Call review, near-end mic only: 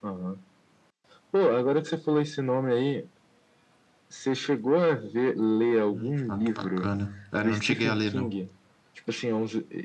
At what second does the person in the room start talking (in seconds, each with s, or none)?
5.9 s